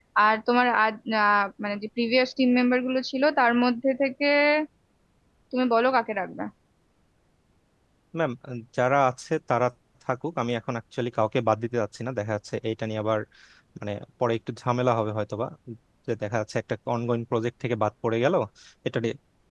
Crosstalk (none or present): none